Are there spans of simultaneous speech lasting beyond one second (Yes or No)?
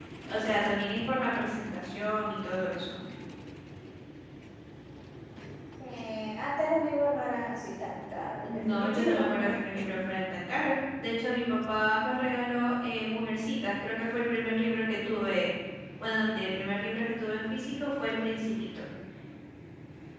Yes